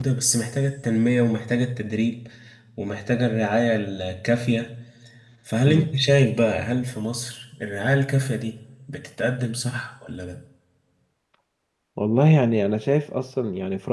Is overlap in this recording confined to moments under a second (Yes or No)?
Yes